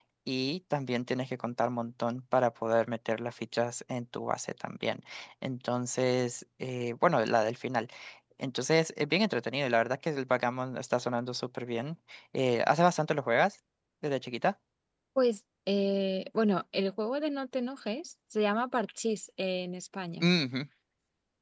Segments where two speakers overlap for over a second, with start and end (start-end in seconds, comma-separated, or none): none